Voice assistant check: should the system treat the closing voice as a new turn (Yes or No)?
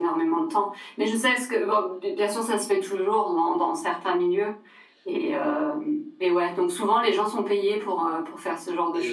Yes